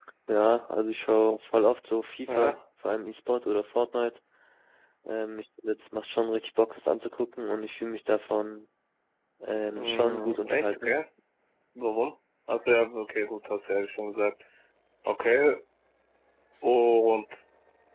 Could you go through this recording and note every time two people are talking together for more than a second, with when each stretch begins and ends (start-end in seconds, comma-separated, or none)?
9.7-10.9